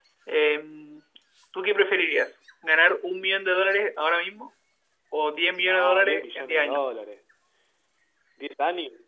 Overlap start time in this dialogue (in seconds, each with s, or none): 5.6 s